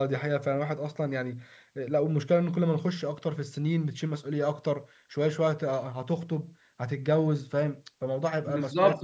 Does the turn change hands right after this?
Yes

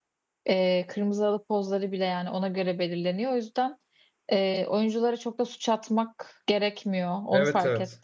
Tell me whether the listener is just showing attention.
No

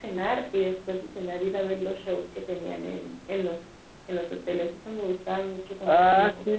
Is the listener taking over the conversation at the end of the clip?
Yes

